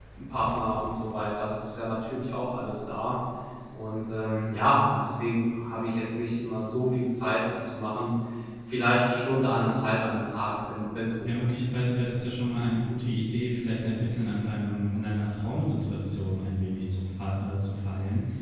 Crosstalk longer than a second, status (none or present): none